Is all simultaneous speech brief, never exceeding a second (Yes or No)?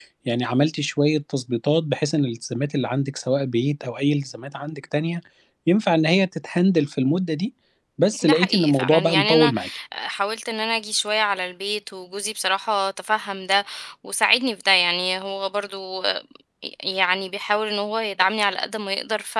No